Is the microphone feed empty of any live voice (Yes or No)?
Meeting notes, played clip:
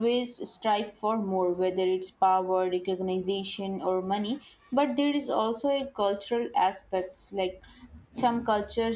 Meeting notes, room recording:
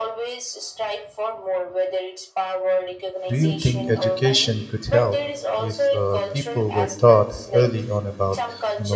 No